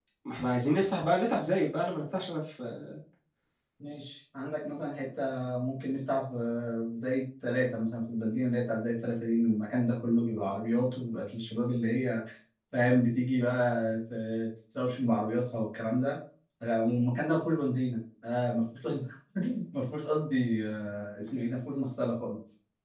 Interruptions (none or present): none